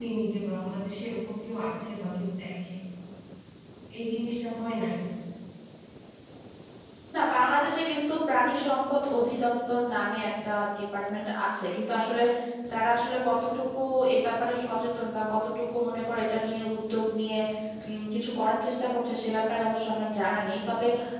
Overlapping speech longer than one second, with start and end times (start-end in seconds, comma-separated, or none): none